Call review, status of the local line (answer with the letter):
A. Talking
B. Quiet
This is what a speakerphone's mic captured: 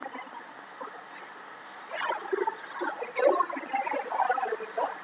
B